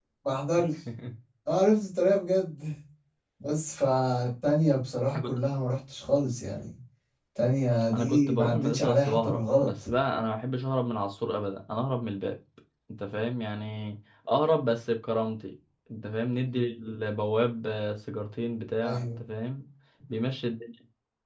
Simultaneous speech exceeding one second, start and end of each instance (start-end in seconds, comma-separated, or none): 7.9-9.7